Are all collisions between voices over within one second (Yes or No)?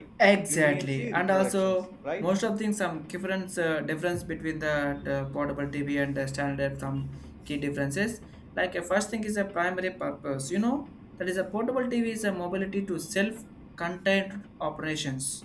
No